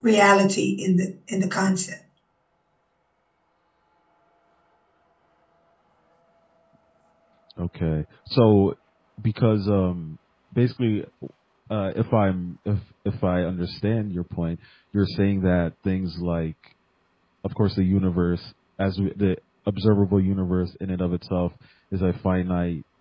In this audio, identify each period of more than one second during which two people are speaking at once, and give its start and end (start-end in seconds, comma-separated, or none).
none